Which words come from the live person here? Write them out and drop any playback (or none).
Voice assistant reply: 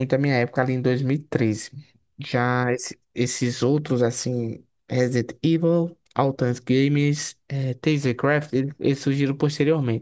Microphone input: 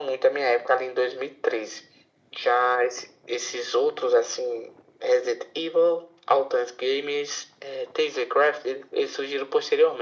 none